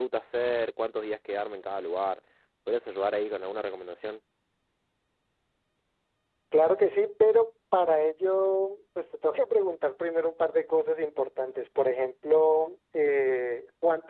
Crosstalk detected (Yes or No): No